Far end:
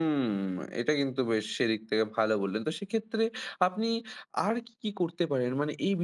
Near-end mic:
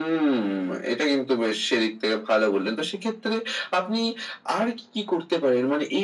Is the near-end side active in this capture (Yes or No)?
No